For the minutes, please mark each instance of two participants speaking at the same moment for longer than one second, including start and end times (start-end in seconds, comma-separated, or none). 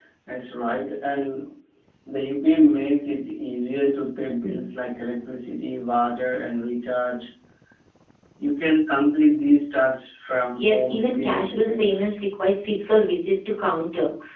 10.5-12.1